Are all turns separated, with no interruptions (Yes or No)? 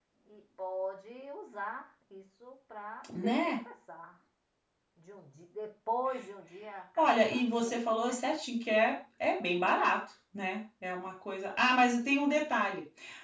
No